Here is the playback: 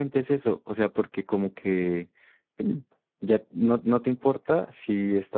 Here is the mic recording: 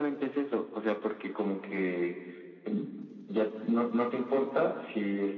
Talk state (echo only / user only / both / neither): echo only